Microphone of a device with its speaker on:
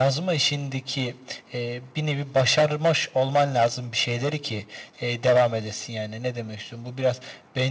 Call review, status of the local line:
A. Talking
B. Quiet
B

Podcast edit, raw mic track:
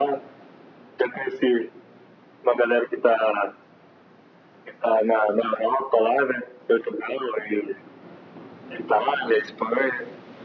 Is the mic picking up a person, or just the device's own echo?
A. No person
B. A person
A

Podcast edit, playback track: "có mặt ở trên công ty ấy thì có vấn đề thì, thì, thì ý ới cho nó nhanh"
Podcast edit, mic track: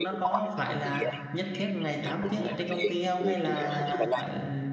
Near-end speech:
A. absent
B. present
B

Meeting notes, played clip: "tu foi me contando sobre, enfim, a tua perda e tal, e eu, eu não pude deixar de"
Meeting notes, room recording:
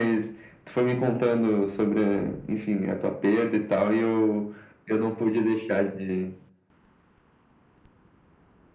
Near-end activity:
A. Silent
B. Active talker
A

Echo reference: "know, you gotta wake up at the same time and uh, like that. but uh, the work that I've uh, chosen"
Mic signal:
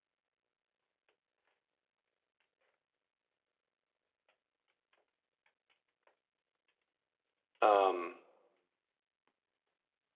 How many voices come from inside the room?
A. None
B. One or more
B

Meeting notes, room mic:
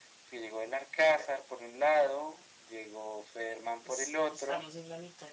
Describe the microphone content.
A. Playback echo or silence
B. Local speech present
B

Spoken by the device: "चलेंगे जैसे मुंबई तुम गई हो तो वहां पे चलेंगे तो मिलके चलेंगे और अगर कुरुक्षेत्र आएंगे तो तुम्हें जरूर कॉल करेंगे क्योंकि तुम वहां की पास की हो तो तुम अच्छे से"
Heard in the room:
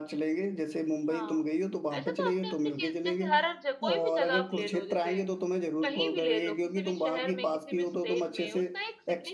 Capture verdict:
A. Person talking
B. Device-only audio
A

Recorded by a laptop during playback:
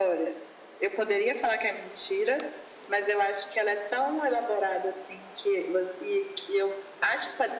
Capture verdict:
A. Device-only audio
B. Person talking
A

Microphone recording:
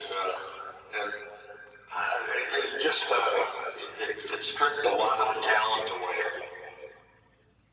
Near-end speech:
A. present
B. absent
B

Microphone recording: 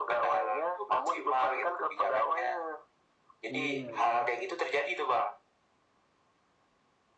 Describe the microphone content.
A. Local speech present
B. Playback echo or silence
A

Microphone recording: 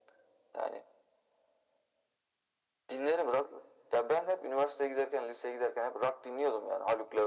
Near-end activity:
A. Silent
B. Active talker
A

